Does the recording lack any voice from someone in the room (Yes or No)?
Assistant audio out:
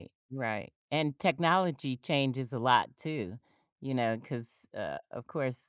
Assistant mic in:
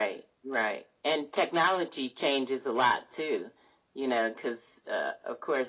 Yes